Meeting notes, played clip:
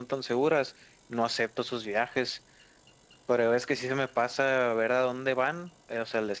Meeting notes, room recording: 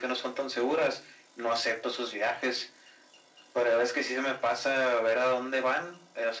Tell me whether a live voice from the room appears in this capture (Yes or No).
No